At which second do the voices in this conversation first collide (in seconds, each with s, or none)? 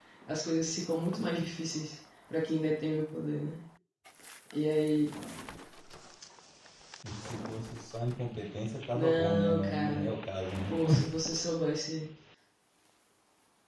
8.9 s